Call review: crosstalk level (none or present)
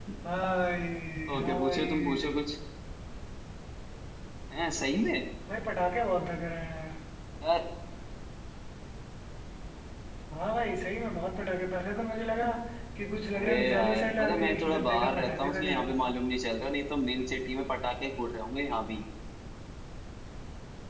present